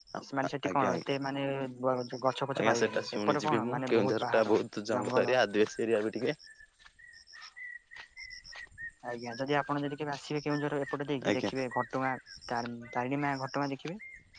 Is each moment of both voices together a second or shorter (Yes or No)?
No